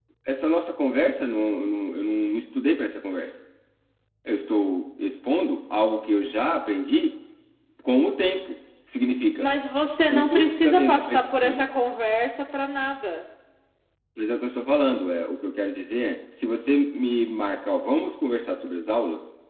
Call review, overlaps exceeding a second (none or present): present